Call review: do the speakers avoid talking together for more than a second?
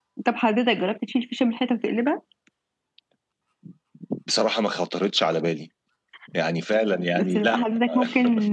Yes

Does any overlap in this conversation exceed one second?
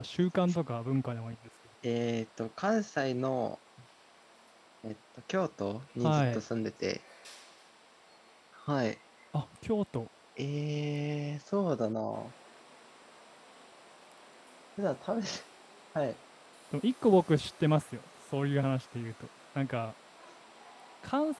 No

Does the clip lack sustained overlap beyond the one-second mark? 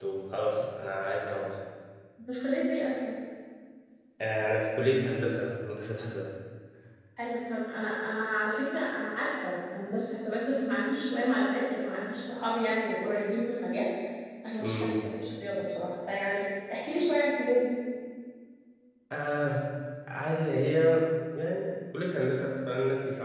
Yes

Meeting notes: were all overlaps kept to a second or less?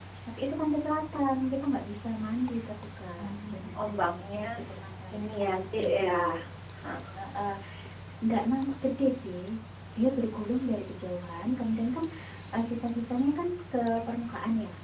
No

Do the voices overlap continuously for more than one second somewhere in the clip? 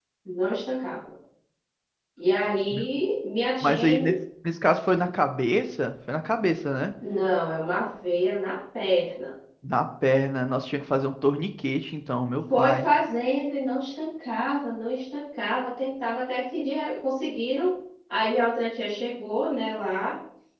No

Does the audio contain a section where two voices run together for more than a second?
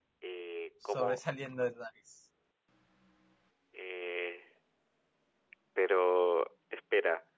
No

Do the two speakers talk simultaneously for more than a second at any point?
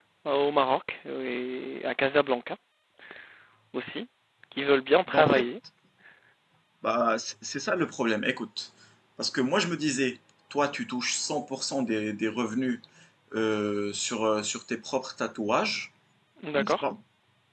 No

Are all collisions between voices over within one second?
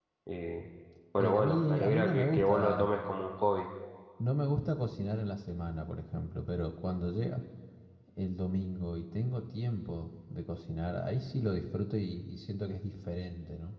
No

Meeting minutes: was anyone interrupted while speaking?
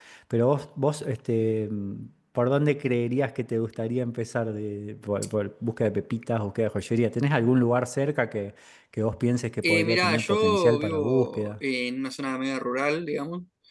Yes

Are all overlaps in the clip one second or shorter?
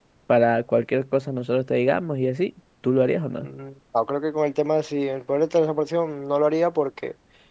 Yes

